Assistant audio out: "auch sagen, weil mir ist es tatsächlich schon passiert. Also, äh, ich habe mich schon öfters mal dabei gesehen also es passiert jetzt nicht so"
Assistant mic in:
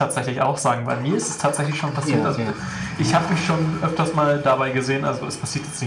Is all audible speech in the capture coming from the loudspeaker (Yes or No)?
No